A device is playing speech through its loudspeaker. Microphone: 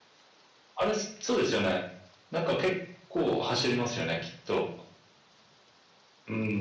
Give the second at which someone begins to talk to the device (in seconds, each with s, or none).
none